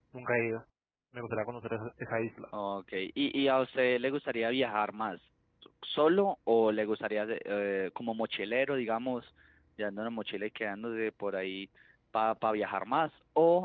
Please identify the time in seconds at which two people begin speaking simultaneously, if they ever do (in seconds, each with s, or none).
none